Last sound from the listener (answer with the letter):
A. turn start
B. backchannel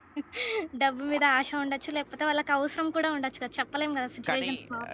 A